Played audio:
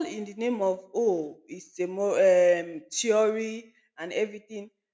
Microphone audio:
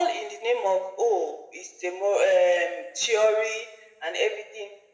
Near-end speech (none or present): none